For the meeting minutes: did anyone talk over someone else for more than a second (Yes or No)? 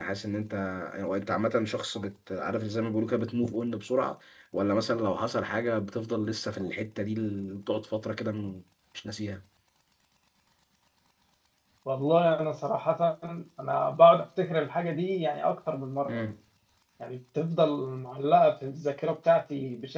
No